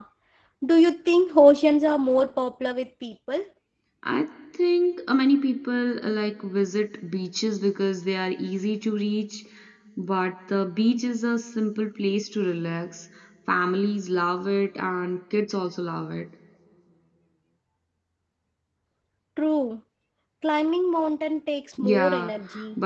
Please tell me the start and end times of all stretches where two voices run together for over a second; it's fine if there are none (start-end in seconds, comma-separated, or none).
none